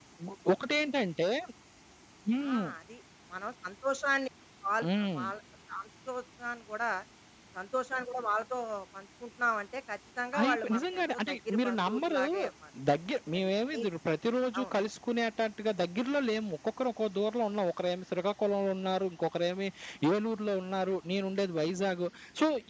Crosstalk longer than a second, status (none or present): present